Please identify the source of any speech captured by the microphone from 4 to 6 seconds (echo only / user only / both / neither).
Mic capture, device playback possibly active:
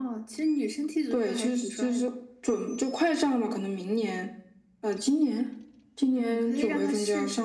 echo only